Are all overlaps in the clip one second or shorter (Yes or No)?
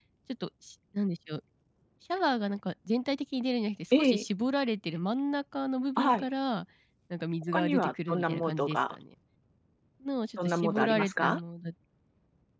No